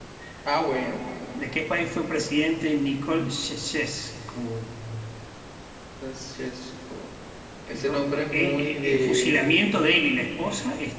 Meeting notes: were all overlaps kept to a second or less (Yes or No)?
No